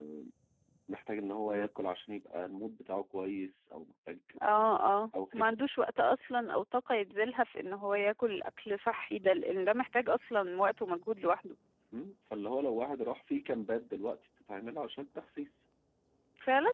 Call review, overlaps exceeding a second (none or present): none